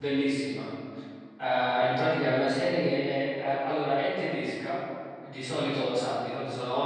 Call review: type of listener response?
listening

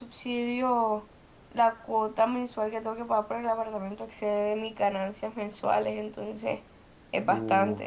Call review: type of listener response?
taking over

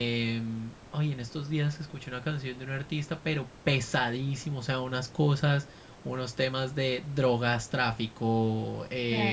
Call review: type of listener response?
listening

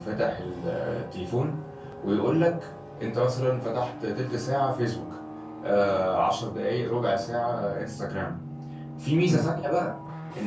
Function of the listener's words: listening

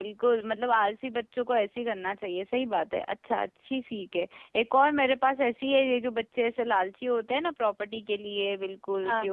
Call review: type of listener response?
listening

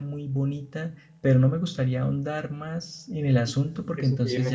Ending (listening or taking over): taking over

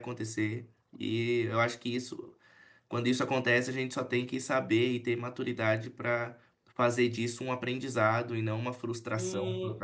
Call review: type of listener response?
taking over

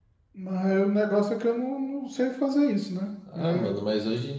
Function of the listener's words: taking over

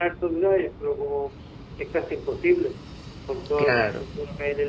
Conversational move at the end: listening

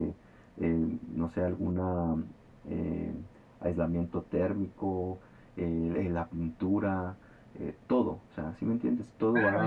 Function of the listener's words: taking over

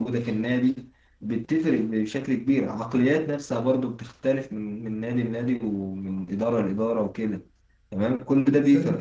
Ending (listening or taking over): listening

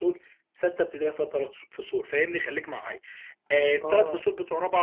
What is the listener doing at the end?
listening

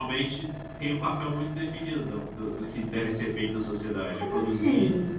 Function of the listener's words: taking over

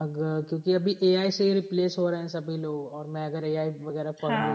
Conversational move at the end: taking over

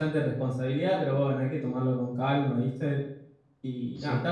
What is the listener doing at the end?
listening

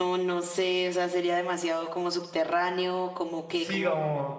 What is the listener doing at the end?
taking over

